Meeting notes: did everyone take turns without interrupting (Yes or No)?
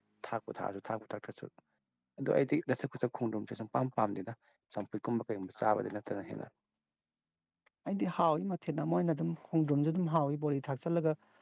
Yes